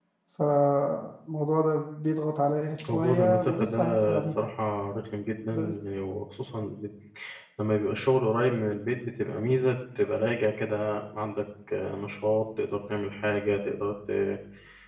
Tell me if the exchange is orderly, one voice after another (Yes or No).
No